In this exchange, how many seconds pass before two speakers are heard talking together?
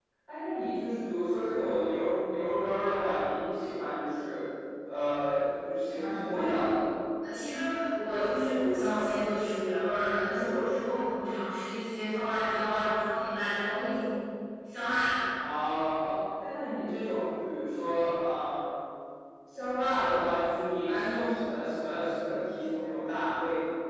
none

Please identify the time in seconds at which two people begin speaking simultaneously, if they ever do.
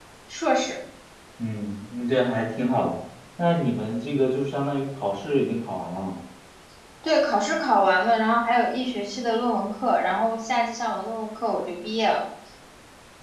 none

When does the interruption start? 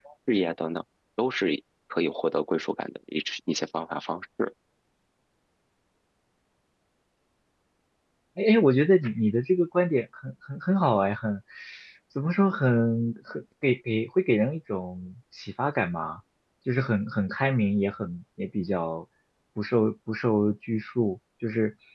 none

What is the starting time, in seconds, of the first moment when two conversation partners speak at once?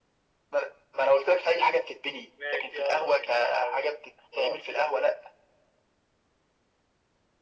2.4 s

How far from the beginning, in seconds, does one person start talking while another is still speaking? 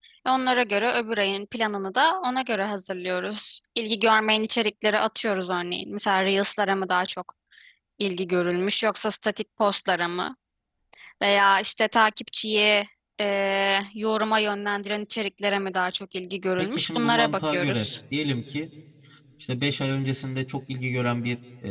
16.6 s

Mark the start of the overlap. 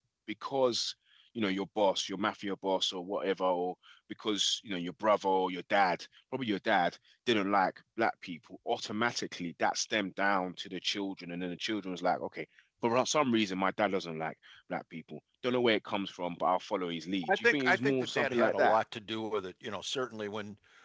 17.2 s

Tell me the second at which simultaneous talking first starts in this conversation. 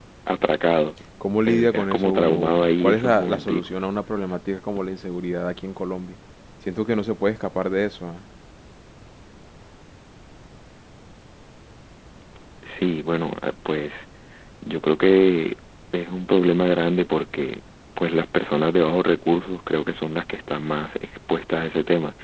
1.4 s

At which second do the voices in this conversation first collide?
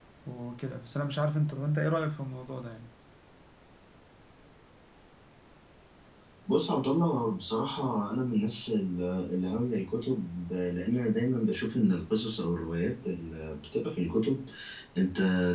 none

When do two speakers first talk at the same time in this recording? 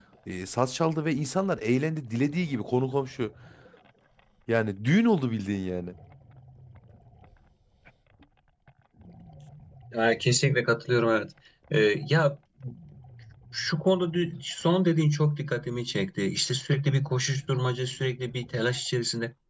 none

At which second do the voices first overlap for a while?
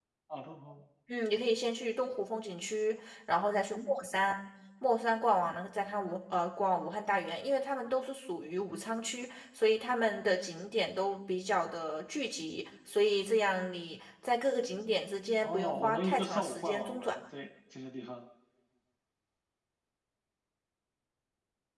15.4 s

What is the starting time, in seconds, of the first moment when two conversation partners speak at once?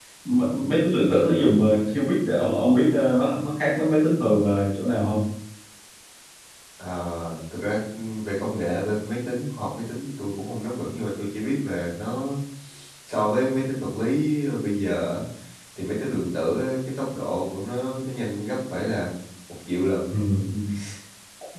none

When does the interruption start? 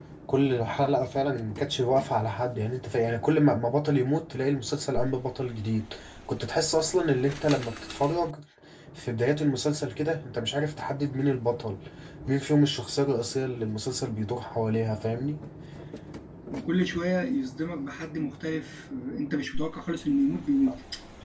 none

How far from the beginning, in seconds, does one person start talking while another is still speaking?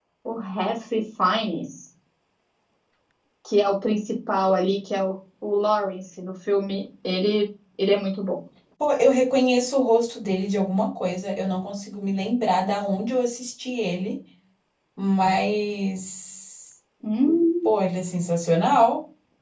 none

